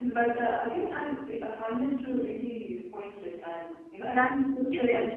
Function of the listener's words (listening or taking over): taking over